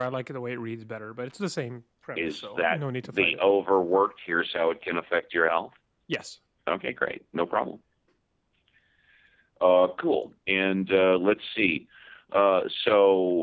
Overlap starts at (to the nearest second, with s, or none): 2 s